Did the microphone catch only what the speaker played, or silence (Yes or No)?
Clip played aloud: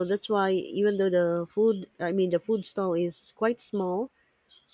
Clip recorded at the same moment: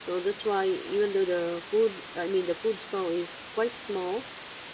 Yes